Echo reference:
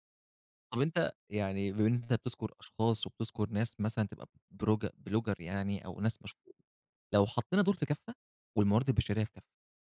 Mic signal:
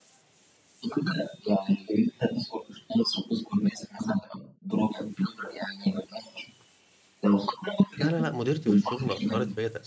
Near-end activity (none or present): present